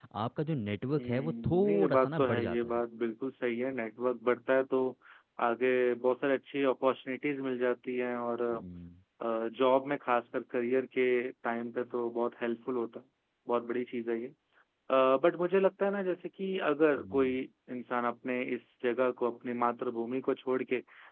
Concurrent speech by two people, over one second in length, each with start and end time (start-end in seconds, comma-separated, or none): 1.0-2.8